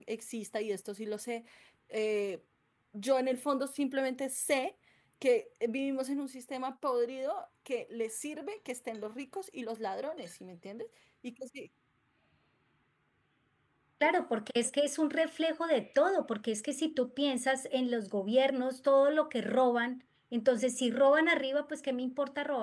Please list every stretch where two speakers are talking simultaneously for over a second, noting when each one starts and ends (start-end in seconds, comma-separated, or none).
none